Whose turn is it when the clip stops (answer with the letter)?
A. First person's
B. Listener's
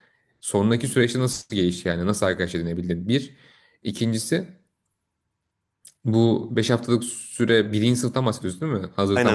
B